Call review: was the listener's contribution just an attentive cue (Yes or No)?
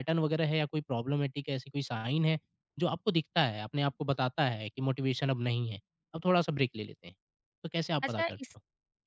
No